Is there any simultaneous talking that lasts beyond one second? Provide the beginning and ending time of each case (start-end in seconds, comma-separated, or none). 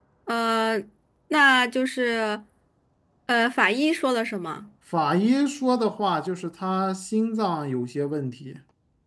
none